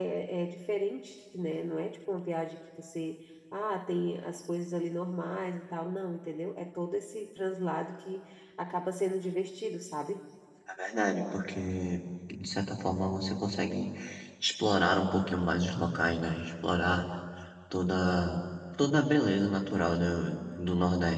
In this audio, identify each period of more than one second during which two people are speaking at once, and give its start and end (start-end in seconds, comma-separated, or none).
none